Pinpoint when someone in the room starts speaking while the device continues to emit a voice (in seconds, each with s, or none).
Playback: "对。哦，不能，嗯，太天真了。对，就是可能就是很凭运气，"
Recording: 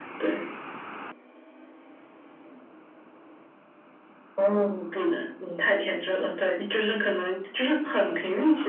none